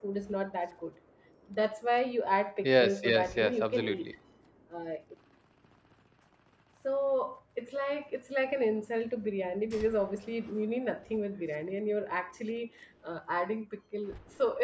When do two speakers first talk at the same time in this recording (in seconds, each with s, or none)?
2.6 s